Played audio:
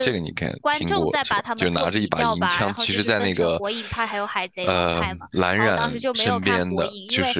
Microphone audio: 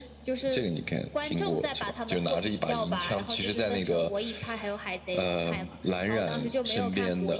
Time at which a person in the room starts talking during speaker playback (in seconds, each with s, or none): none